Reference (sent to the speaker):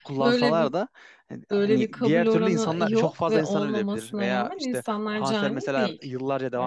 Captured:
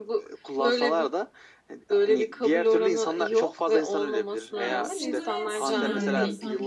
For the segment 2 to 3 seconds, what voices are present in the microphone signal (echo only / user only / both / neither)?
echo only